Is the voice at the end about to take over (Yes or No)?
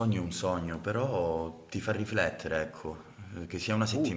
No